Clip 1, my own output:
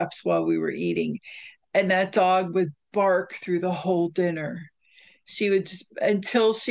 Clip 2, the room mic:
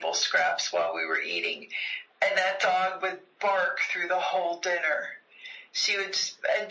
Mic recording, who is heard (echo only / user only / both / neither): echo only